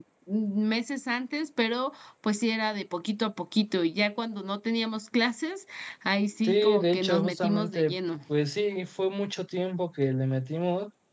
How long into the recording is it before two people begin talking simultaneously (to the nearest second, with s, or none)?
6 s